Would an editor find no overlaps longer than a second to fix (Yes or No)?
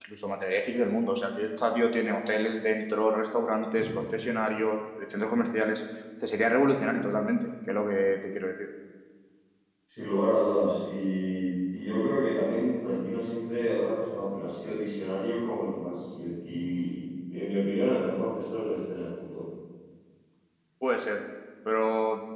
Yes